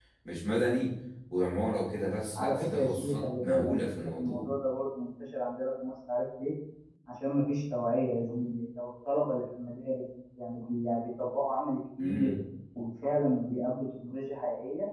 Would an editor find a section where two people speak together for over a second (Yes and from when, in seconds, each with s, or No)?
Yes, from 2.4 s